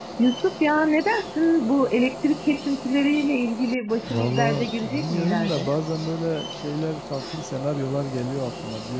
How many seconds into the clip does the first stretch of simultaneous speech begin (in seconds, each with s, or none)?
4.1 s